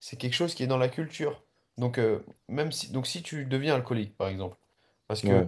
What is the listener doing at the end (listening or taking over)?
listening